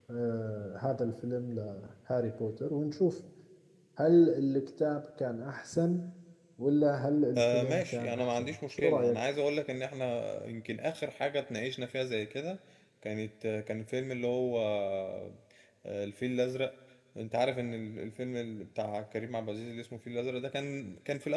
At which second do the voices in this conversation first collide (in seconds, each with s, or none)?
7.4 s